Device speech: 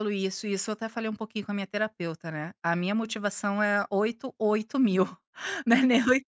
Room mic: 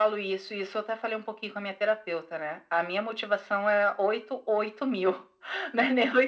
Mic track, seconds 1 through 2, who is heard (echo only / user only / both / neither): echo only